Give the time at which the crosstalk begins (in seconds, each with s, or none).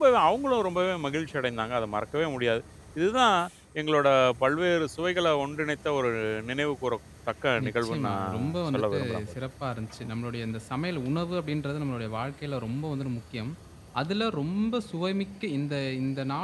7.6 s